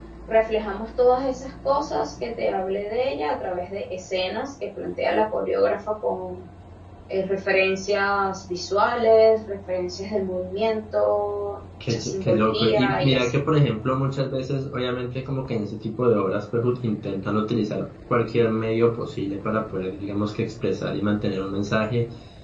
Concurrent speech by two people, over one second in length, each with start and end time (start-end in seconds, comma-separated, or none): 11.9-13.3